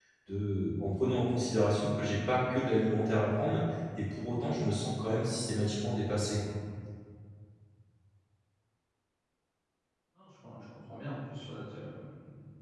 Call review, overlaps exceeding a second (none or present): none